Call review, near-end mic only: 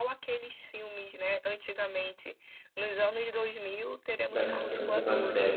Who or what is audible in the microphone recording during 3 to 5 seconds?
both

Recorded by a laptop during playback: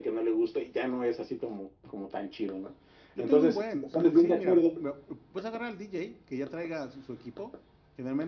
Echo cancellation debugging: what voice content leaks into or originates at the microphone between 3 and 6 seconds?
both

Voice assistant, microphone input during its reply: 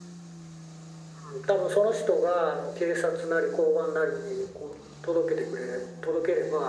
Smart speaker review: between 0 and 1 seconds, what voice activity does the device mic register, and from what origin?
neither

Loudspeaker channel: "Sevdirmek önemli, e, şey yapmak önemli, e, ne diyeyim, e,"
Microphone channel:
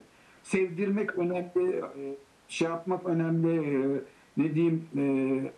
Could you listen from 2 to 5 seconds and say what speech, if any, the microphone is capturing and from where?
echo only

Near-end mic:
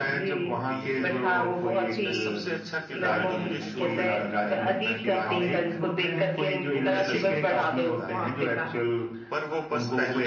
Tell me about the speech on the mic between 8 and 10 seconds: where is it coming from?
both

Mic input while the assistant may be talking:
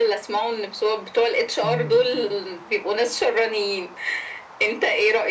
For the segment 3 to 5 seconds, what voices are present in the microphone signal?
echo only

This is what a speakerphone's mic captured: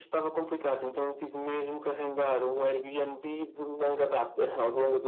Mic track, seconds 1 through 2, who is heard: echo only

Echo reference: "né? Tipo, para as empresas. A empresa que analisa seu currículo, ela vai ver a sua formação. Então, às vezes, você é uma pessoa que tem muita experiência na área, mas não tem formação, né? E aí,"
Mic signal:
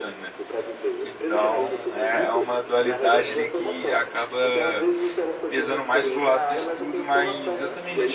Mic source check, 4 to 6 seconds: both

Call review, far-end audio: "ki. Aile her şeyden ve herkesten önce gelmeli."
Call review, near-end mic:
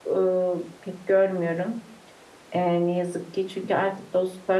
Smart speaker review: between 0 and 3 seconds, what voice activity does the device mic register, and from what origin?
user only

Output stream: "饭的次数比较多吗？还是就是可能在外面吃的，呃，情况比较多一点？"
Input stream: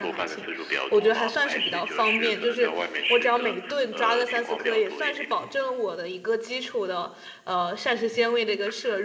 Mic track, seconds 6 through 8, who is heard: user only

